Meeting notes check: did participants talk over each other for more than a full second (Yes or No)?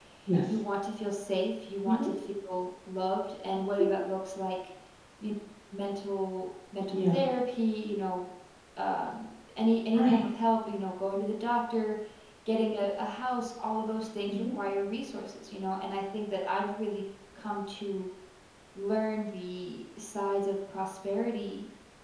No